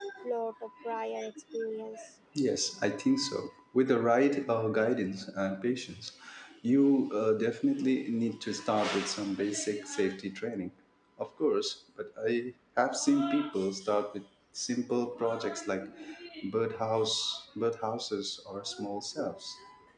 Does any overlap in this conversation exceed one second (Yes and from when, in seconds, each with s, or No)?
No